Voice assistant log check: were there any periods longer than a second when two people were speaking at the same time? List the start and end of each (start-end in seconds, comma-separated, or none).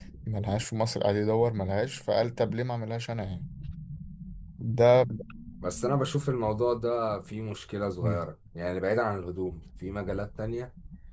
none